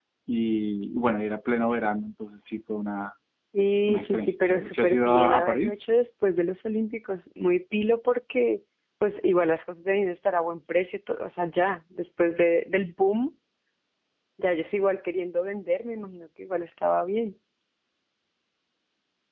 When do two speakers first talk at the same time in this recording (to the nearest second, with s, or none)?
4 s